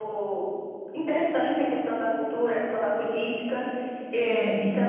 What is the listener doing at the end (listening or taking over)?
listening